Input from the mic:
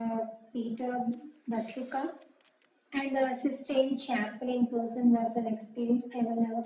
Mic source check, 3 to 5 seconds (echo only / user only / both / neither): echo only